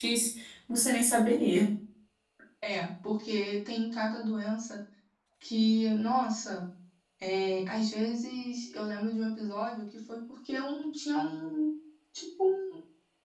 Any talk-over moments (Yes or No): No